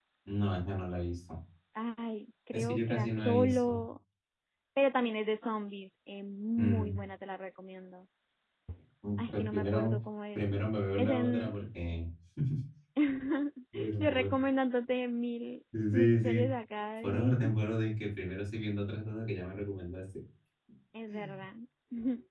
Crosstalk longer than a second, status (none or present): present